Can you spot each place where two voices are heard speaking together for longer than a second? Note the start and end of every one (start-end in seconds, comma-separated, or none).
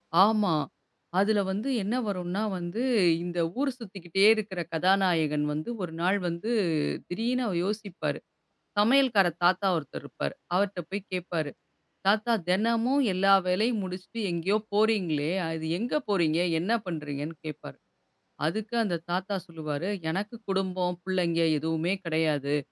none